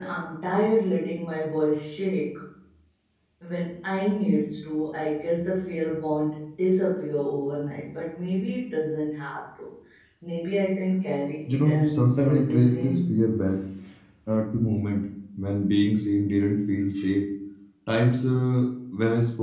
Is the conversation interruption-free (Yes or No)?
No